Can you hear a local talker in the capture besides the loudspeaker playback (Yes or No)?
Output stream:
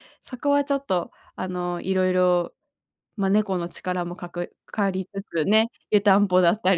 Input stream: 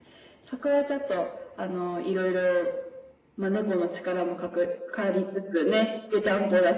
No